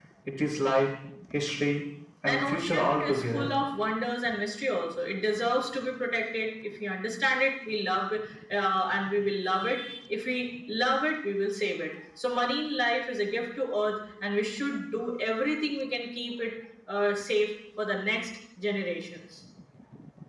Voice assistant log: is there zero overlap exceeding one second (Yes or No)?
No